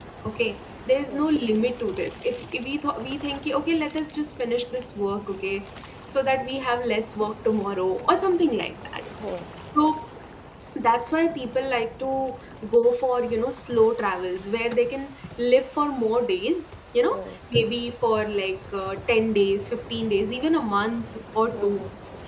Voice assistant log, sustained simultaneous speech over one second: none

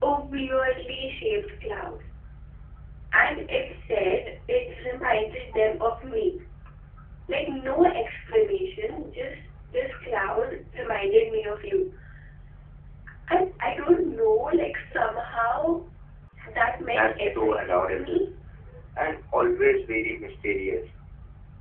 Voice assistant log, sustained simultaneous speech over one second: present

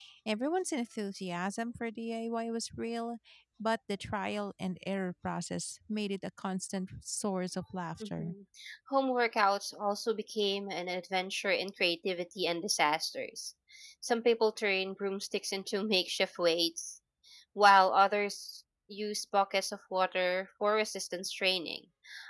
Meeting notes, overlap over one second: none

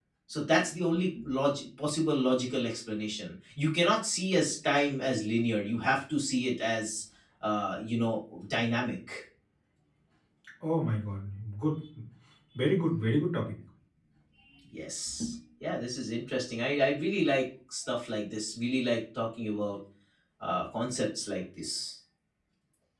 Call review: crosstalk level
none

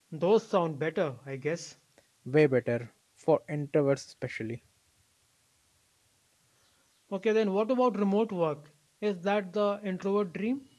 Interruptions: none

